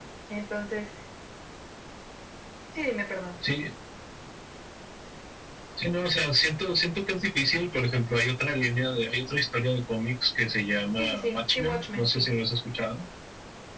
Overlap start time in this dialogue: 11.0 s

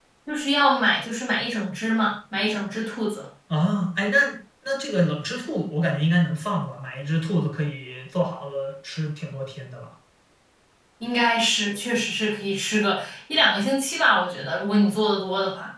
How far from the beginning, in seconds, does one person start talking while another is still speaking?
none

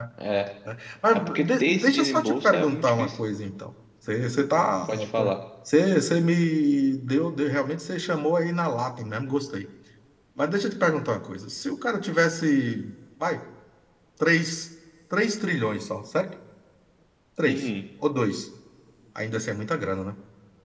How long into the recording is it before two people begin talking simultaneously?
1.1 s

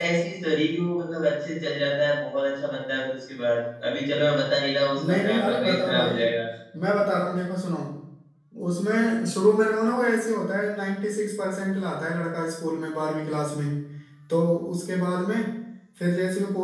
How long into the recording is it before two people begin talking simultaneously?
5.0 s

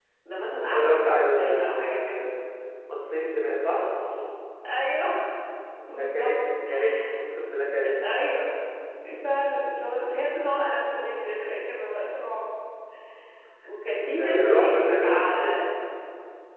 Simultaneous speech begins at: 0.7 s

